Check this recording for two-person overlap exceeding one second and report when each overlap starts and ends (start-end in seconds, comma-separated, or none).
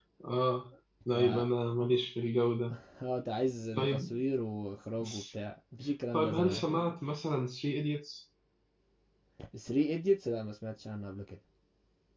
none